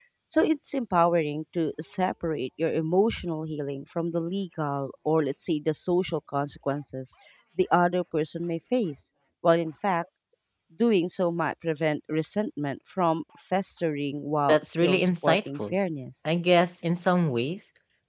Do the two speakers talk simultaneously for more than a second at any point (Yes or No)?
Yes